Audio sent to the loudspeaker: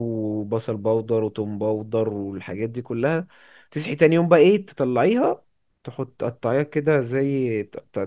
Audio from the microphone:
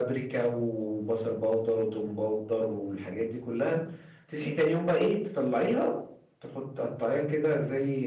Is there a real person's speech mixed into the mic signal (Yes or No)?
No